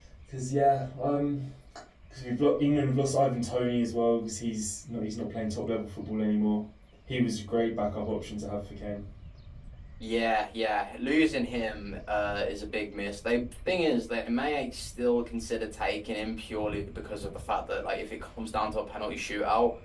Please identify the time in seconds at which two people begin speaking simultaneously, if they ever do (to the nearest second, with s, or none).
none